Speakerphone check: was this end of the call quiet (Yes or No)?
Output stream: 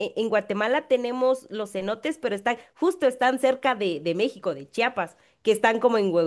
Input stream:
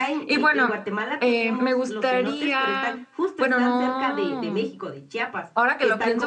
No